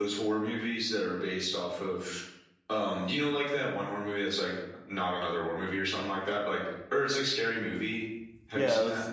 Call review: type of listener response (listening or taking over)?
taking over